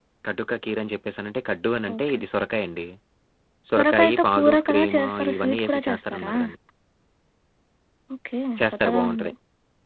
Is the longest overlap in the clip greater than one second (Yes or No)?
Yes